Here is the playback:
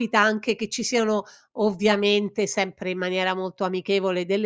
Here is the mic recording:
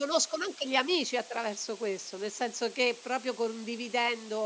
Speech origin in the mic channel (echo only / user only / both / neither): user only